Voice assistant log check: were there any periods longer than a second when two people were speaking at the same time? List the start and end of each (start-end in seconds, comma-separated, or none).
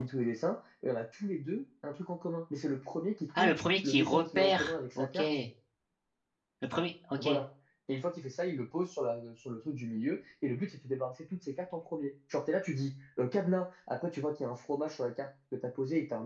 3.4-5.4